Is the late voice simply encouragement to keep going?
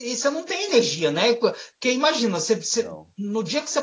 Yes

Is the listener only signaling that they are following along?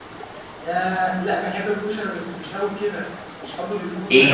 No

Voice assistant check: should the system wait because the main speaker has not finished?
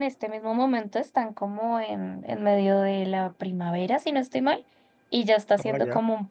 Yes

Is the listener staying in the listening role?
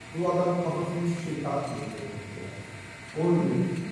No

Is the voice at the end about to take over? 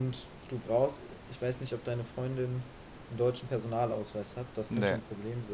No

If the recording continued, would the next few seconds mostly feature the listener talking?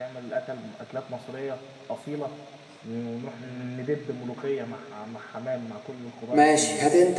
Yes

